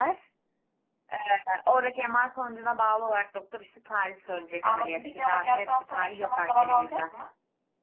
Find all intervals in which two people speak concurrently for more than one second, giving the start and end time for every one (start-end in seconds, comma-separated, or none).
4.6-7.0